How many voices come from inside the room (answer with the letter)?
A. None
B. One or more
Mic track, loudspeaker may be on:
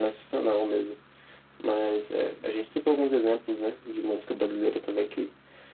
A